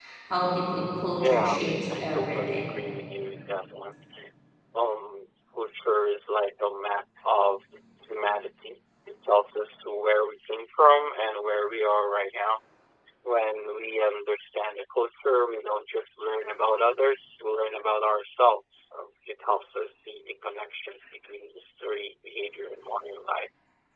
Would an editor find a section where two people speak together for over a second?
Yes, from 1.2 s

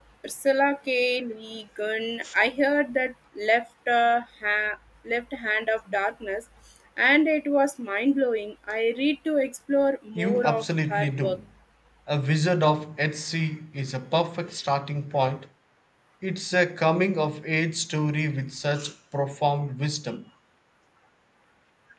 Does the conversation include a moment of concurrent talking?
Yes, from 10.2 s

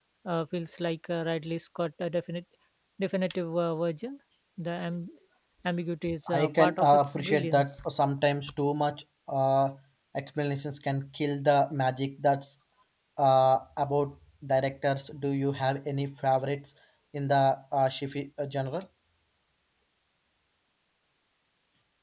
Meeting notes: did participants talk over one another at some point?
Yes, from 6.3 s

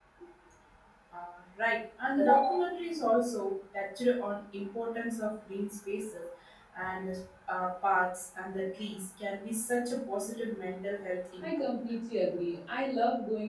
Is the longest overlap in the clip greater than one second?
No

